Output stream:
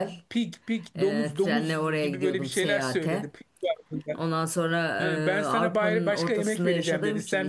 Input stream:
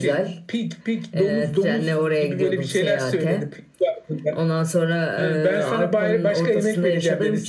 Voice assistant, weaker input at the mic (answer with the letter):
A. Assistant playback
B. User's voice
B